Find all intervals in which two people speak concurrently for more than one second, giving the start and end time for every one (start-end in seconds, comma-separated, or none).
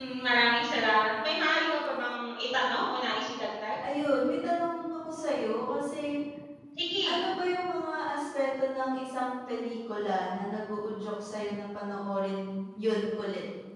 none